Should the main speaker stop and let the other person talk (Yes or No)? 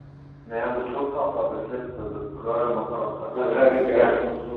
Yes